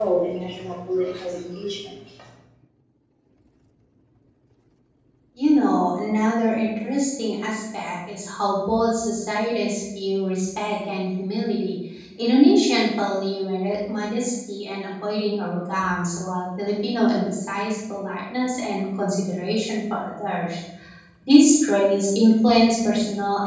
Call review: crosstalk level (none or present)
none